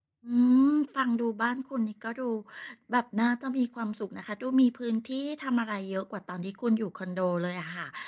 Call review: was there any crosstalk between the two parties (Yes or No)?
No